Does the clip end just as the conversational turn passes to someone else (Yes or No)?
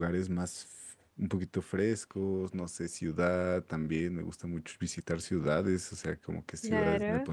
No